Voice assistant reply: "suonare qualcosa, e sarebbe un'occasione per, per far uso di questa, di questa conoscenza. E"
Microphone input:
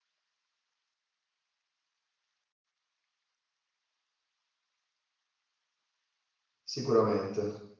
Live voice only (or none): sicuramente.